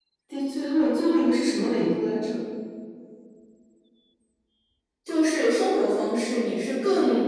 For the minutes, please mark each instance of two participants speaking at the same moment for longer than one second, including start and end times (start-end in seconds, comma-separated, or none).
none